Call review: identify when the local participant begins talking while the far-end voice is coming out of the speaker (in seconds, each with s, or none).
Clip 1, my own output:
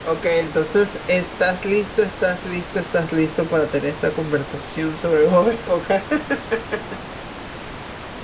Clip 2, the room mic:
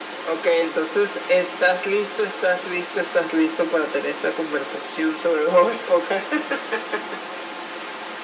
none